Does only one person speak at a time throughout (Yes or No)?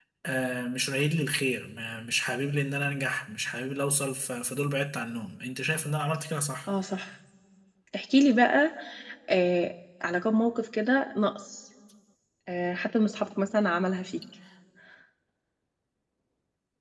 Yes